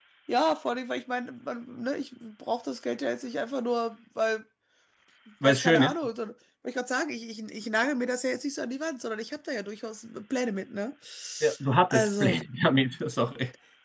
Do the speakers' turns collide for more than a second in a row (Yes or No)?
No